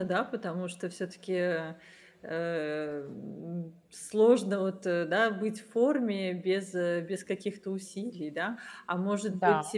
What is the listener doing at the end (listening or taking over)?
listening